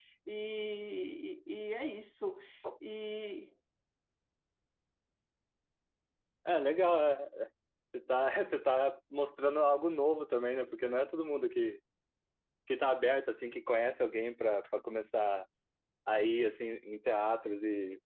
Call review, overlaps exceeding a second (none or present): none